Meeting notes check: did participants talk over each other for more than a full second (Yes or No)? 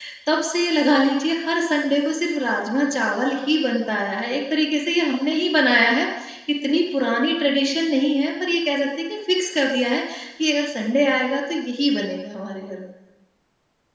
No